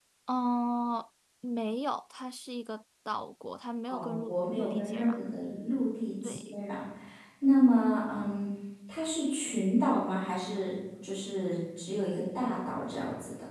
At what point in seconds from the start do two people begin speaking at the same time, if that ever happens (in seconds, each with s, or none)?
3.9 s